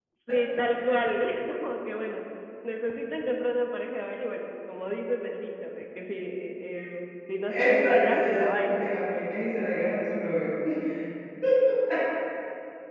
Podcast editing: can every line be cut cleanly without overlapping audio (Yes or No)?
No